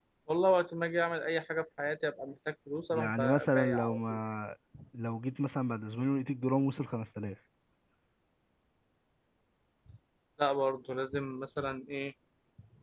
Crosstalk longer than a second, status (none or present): present